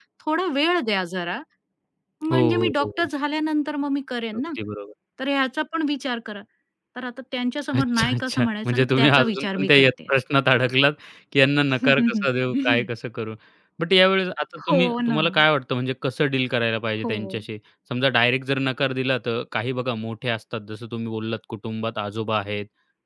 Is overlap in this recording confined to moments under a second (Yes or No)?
No